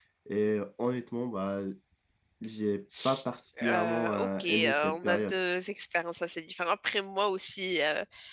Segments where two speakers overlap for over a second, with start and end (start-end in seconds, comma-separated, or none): 3.7-5.4